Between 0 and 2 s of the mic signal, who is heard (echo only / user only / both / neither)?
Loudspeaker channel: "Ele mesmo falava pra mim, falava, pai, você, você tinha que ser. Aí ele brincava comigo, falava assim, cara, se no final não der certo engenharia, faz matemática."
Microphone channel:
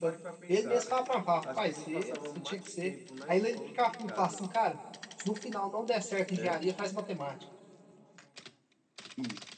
both